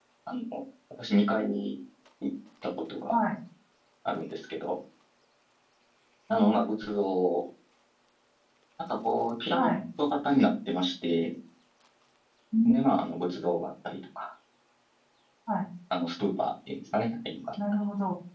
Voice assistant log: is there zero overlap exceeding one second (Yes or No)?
Yes